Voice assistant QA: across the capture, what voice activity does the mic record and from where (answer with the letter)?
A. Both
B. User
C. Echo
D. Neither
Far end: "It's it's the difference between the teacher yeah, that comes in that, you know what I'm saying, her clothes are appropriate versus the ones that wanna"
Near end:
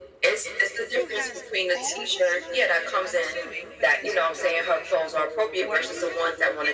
A